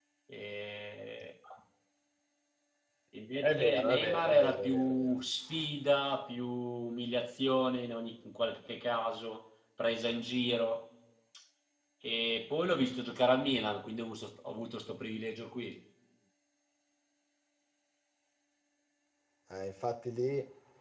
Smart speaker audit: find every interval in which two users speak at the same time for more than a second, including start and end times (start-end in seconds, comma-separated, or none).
3.4-5.1